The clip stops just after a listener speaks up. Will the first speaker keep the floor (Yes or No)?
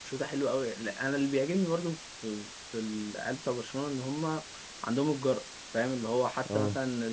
Yes